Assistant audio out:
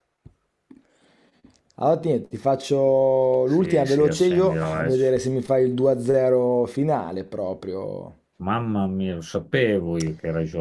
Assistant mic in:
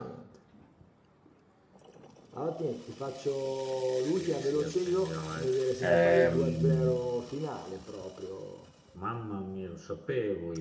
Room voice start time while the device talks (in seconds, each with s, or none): 5.8 s